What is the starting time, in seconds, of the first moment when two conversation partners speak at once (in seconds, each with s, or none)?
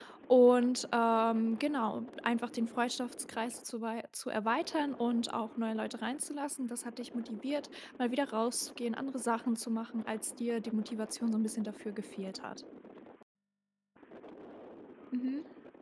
none